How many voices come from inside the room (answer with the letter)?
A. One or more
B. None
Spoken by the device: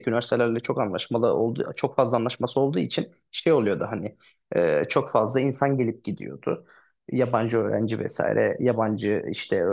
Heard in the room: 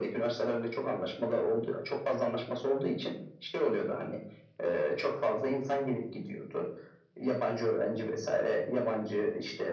B